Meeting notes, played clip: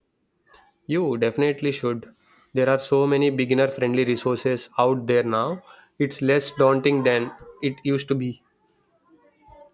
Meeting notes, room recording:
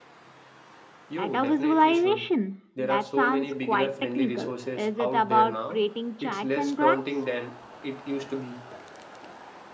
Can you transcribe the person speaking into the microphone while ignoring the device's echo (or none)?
Data visualization. That sounds quite technical. Is it about creating charts and graphs?